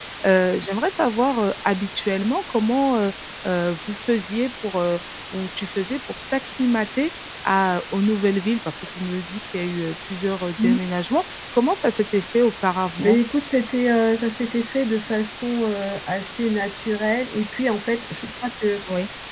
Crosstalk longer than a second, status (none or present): none